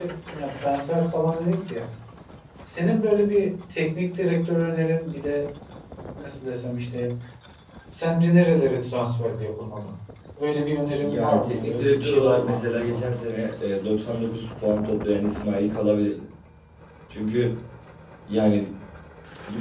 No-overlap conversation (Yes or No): No